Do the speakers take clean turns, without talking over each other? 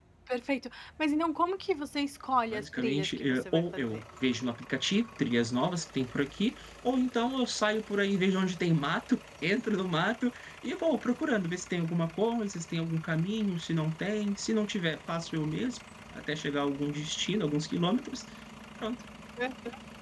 No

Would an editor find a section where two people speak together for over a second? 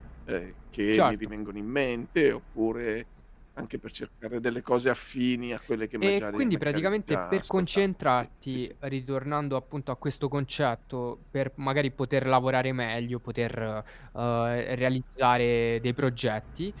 Yes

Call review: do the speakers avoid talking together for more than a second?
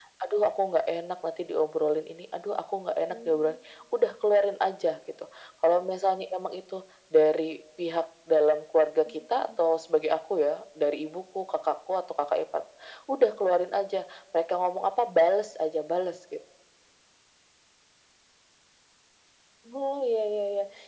Yes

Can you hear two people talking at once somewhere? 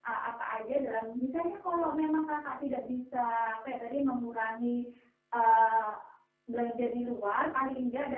No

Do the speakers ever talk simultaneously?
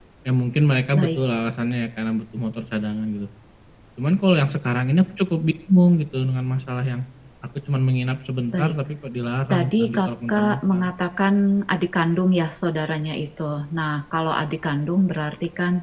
Yes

